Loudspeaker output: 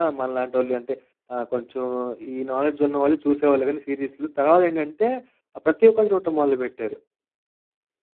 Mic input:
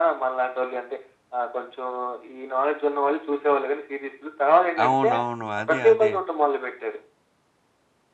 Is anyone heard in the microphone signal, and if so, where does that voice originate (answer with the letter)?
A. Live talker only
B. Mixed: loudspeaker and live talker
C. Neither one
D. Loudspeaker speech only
B